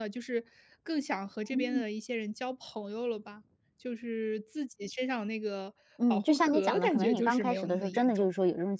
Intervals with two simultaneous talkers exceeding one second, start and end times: 6.1-8.3

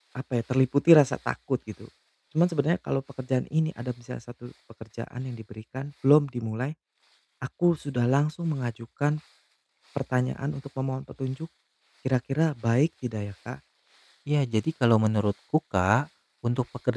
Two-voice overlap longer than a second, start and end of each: none

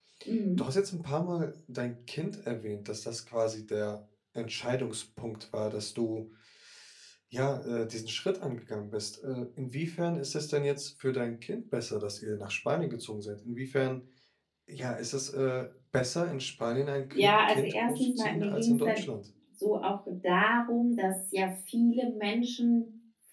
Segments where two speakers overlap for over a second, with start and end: 17.1-19.0

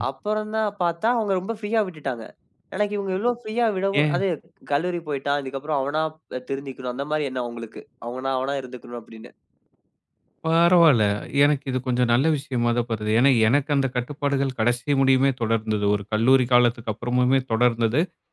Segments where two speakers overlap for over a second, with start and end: none

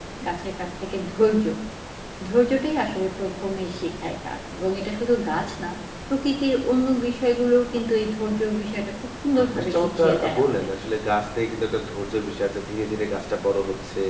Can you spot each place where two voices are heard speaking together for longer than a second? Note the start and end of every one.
9.4-10.8

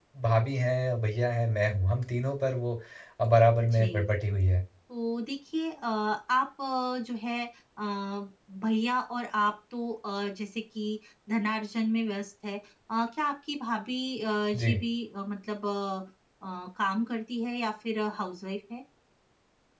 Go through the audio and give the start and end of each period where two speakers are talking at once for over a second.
none

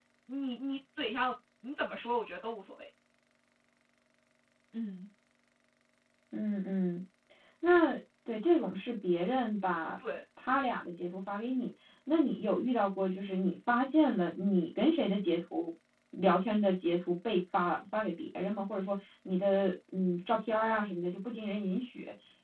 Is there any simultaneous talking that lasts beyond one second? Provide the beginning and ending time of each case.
none

